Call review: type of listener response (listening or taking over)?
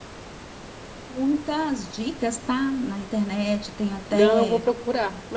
taking over